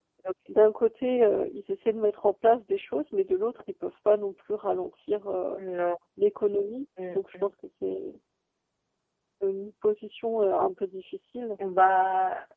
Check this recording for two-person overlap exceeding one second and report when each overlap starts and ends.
none

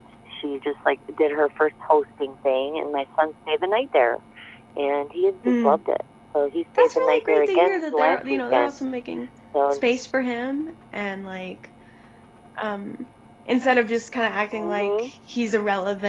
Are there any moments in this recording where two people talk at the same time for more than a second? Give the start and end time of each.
6.8-8.8

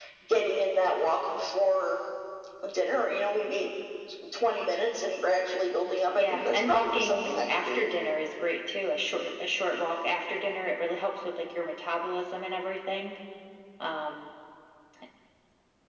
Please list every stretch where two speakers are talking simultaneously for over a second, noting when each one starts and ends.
6.2-7.9

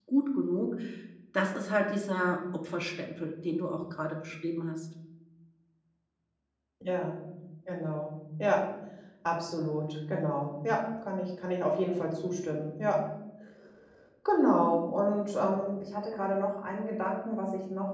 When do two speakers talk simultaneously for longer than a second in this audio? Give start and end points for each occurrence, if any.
none

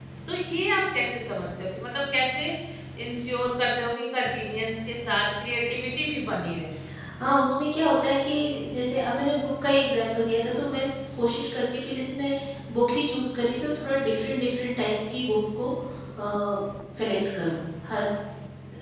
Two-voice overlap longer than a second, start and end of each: none

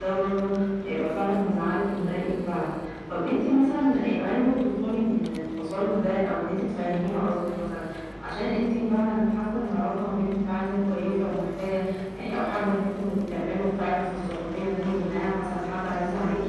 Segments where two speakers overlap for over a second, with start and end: none

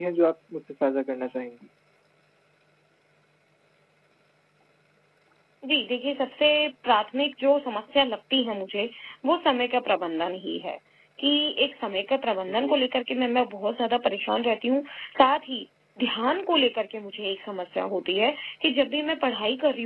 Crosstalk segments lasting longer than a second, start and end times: none

